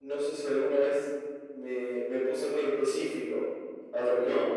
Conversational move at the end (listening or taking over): taking over